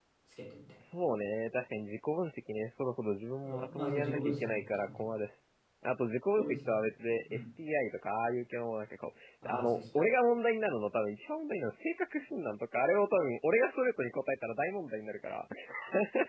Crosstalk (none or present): present